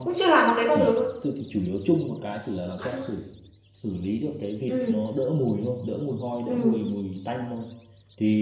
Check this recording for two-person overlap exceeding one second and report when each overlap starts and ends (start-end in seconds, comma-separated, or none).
none